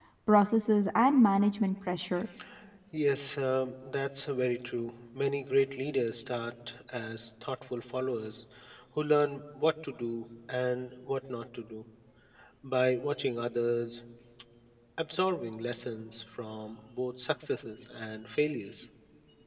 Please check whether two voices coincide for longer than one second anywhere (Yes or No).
No